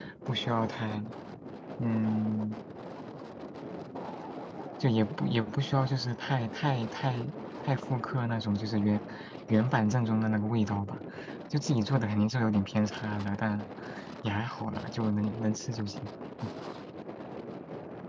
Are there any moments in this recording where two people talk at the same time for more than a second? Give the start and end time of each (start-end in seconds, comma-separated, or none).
none